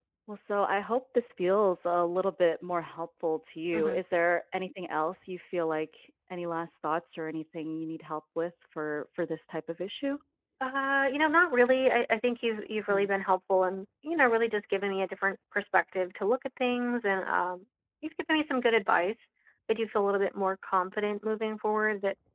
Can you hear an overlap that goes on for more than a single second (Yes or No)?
No